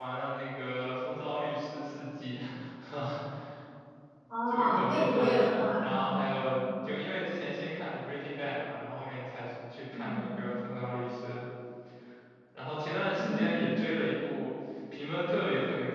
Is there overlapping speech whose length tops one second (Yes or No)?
Yes